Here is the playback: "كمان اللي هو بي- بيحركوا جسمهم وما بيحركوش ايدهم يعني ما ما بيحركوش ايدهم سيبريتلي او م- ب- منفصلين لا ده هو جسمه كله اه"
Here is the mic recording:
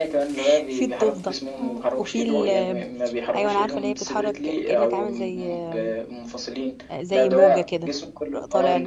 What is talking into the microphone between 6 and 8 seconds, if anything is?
both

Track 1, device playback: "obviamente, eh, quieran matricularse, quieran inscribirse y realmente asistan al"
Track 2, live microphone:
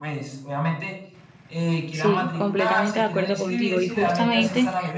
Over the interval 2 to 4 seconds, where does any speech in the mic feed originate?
both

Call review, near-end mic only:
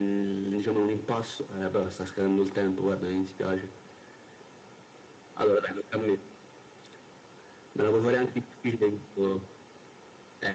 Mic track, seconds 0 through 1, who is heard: echo only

